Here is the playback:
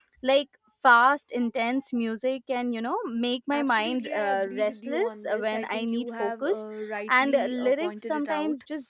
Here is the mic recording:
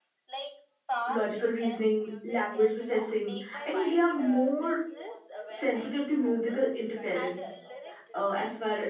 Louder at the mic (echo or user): user